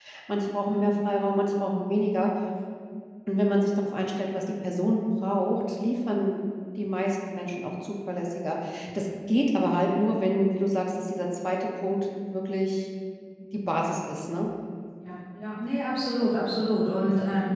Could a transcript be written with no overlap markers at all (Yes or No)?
Yes